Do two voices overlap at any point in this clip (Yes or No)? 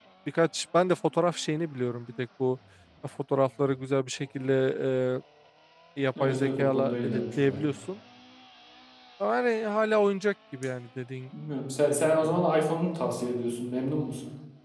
Yes